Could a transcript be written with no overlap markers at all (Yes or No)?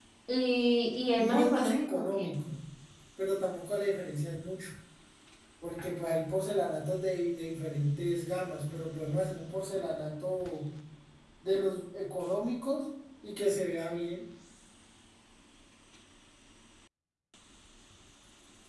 No